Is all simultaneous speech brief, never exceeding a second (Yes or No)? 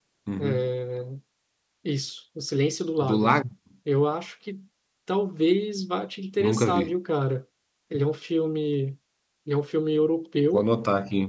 Yes